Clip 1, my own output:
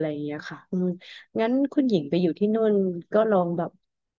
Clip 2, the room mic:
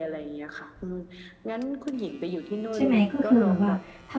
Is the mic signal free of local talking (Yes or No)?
No